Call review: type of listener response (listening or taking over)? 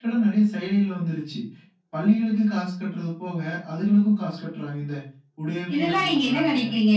taking over